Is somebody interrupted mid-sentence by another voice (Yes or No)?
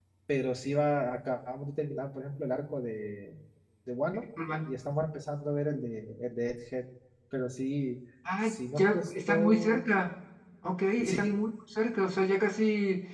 Yes